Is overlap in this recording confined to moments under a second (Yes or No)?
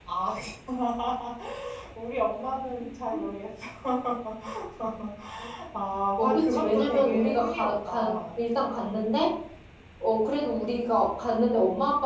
No